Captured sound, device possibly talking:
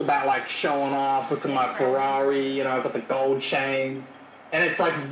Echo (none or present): present